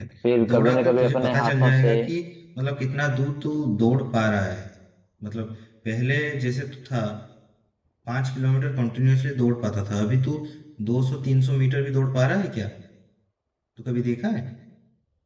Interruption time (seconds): 0.5 s

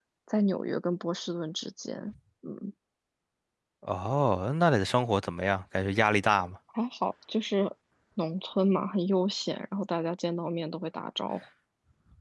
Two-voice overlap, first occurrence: none

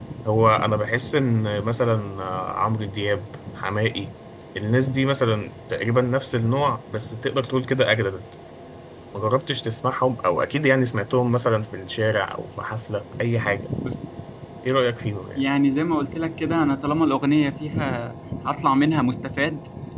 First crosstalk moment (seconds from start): none

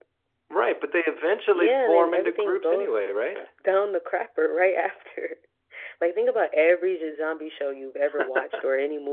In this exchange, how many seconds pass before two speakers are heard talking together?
1.5 s

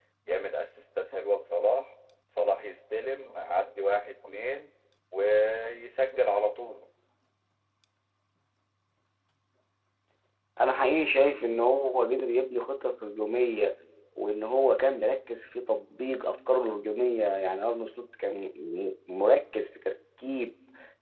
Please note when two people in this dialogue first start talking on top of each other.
none

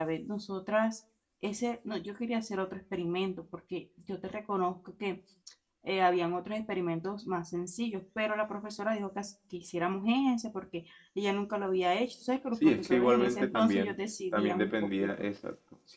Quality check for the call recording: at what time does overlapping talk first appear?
12.6 s

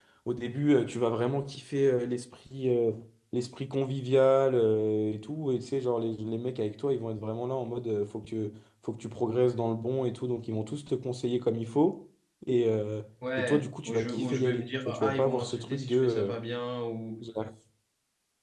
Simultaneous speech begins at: 13.4 s

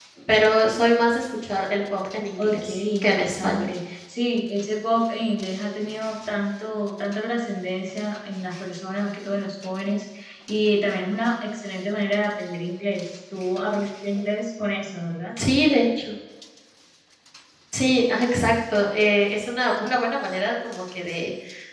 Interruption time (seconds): 2.4 s

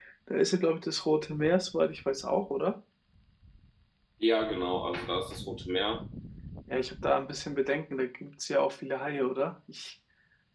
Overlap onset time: none

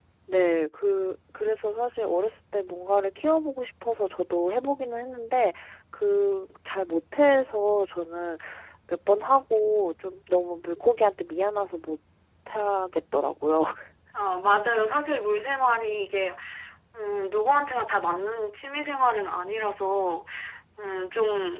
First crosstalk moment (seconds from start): none

